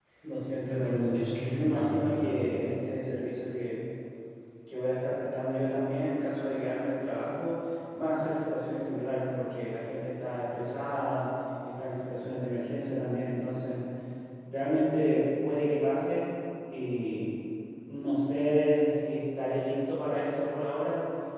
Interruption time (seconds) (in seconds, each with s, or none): 0.7 s